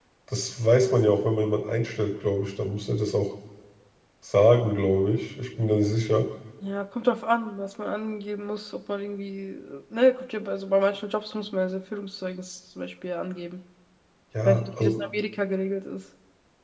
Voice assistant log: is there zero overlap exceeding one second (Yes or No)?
Yes